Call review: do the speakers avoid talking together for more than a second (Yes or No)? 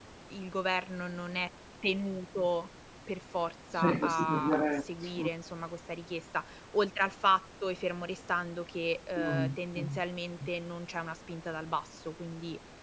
No